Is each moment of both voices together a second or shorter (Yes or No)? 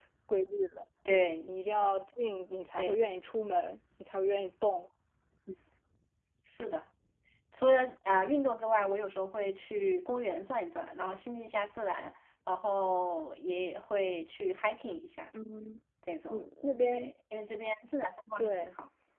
Yes